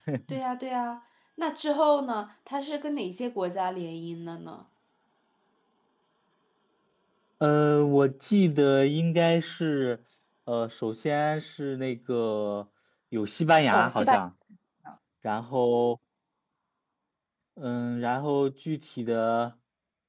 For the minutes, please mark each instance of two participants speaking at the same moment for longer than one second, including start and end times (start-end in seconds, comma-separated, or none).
none